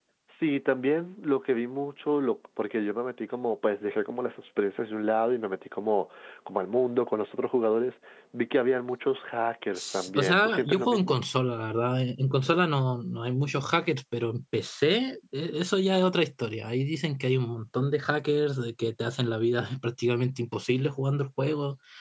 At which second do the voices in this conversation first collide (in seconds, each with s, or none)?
9.8 s